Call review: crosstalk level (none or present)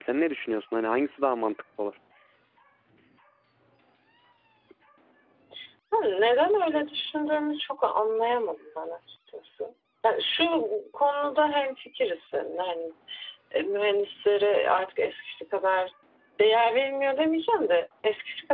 none